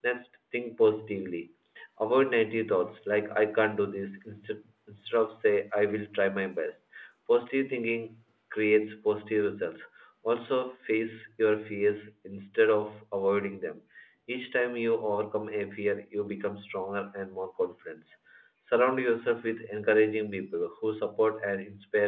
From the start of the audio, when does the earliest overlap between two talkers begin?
none

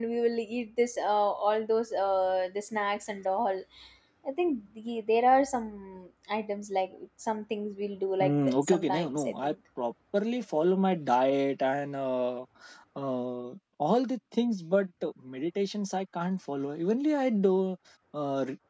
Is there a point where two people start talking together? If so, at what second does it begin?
8.2 s

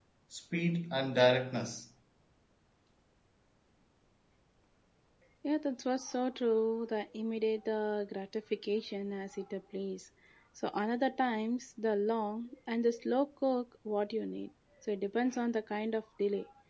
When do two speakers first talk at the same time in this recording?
none

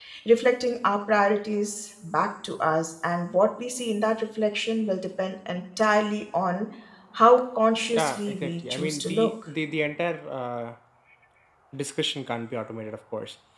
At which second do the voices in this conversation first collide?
7.9 s

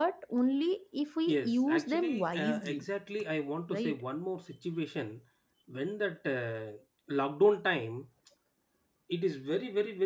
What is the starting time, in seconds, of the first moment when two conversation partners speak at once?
1.3 s

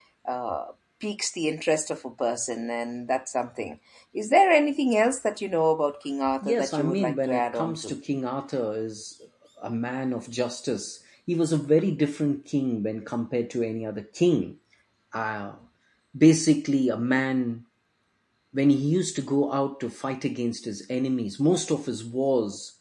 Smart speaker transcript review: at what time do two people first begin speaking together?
6.4 s

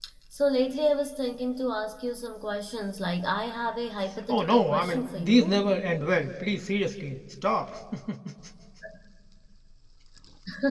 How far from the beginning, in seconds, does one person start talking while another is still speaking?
4.3 s

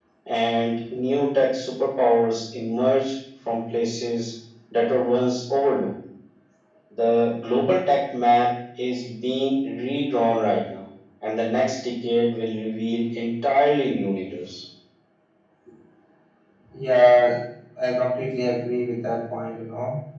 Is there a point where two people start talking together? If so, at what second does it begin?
none

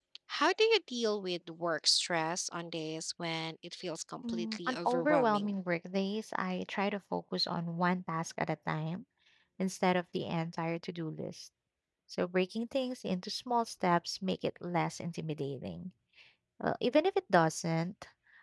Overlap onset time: 4.2 s

